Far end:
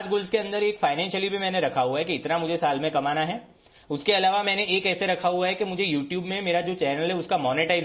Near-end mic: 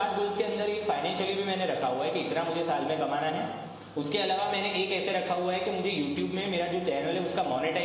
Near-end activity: none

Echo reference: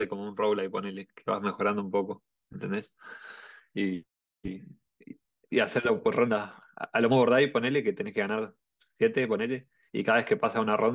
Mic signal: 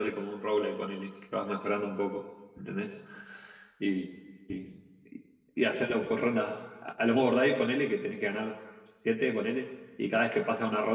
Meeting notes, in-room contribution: none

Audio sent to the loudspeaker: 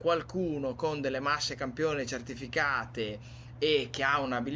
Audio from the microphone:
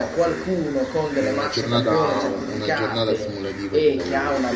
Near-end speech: present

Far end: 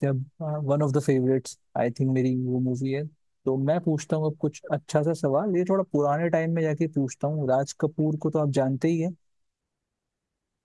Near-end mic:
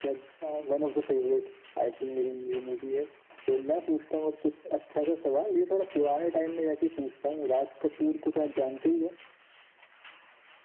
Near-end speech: none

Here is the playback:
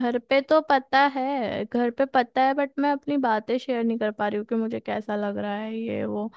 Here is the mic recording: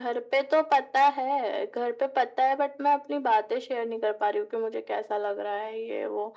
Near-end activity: none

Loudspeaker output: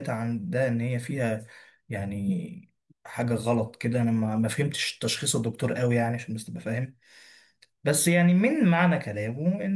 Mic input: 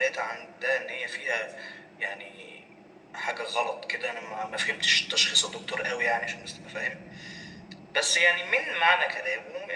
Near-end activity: none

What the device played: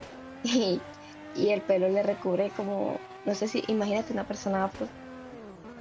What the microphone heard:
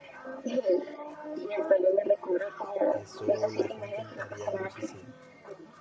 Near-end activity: present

